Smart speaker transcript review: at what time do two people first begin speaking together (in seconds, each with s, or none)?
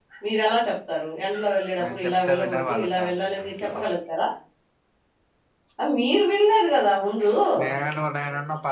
1.8 s